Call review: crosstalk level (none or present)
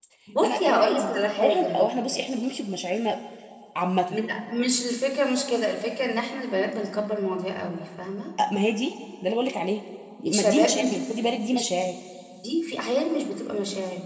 present